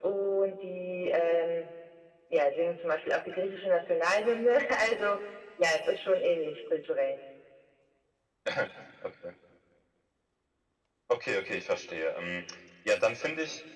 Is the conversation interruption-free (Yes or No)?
Yes